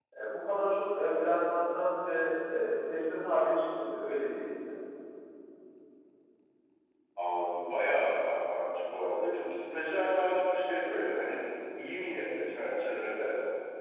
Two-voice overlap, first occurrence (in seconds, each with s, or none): none